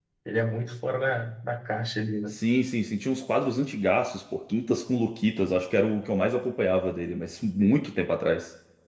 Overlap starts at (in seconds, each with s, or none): none